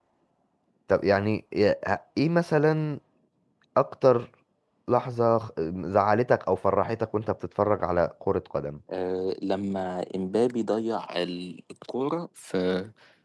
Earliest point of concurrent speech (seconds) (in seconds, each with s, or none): none